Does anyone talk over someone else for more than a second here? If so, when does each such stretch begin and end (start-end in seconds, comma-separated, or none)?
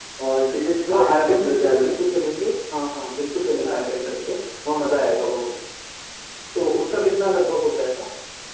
0.9-2.1